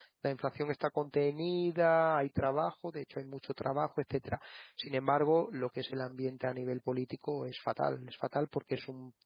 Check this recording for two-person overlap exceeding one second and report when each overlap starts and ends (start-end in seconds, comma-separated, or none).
none